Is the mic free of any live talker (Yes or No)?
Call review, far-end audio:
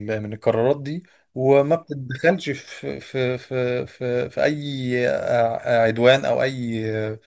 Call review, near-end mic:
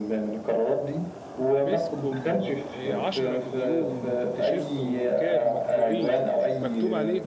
No